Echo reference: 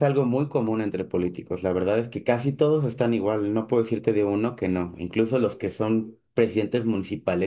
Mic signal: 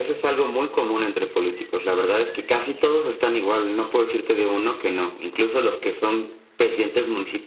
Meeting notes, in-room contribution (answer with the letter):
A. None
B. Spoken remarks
A